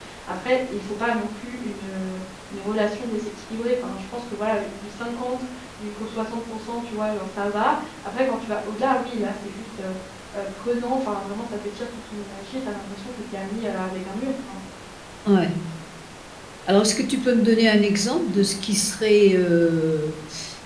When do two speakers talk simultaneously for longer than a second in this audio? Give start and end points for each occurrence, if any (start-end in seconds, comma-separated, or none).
none